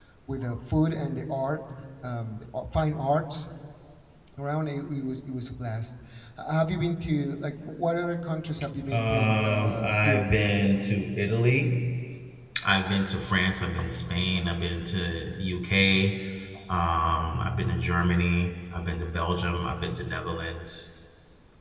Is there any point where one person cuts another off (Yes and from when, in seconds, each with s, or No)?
Yes, from 8.9 s